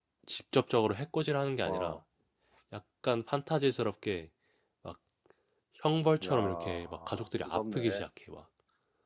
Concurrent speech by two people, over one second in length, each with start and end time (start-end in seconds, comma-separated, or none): 6.2-8.1